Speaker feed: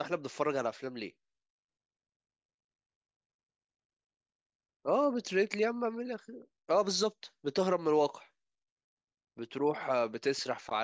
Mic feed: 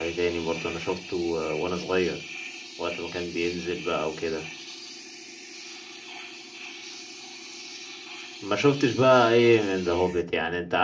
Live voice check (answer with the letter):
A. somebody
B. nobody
A